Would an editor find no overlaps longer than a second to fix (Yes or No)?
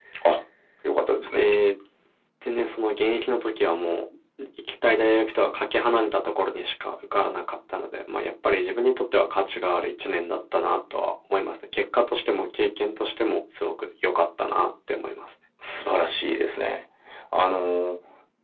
Yes